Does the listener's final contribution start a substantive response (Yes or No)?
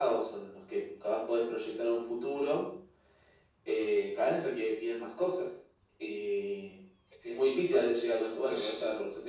No